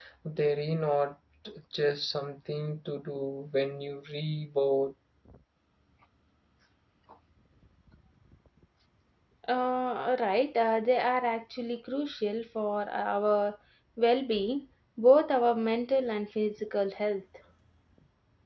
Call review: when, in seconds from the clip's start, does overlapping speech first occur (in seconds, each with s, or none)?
none